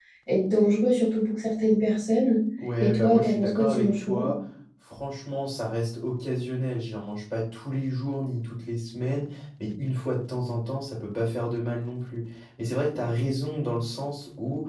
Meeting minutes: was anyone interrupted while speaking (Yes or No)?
Yes